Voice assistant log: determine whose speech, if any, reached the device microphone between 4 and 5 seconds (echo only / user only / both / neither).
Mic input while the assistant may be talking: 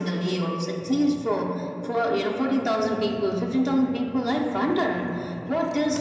echo only